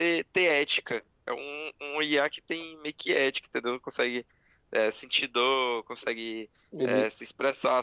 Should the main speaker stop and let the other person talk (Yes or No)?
No